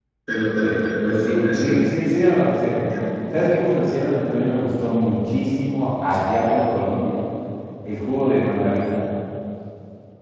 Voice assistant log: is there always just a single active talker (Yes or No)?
No